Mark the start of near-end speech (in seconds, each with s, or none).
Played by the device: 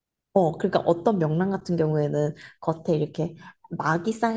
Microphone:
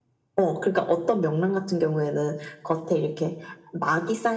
none